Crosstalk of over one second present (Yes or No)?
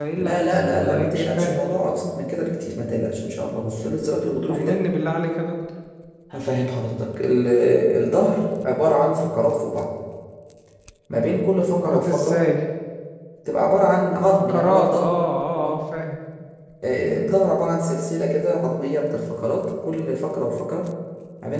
Yes